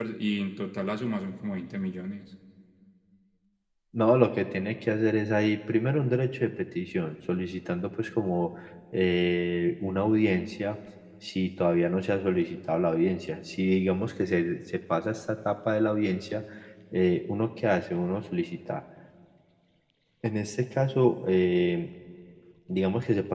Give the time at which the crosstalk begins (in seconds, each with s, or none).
none